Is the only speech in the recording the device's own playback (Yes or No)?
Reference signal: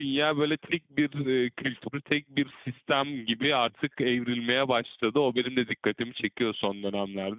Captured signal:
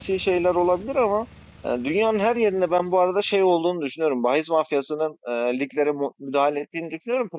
No